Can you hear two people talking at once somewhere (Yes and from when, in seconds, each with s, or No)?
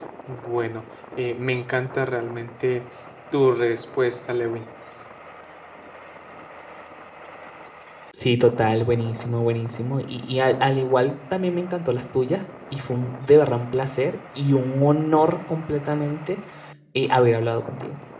No